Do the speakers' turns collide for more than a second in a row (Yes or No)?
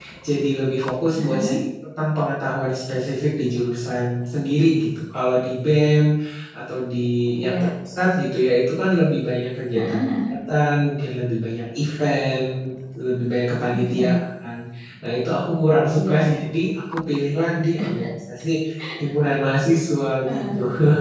No